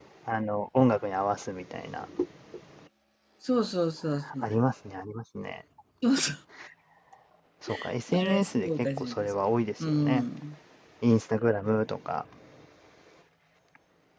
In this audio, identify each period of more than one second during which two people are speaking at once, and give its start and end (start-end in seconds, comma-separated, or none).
8.1-9.3